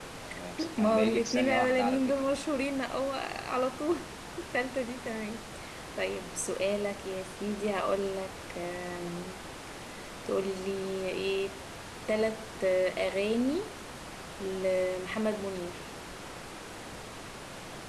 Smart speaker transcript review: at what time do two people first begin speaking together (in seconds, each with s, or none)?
0.8 s